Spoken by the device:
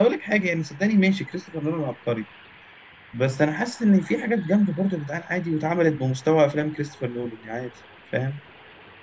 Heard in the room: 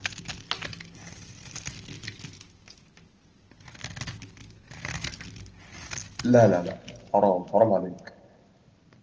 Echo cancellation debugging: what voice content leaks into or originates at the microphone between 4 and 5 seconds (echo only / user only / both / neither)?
neither